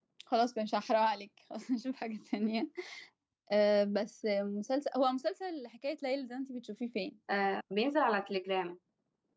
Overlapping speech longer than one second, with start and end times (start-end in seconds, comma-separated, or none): none